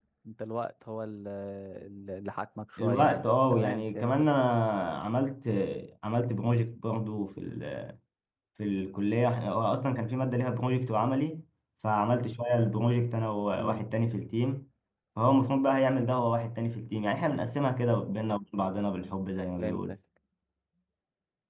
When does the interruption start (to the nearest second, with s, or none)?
3 s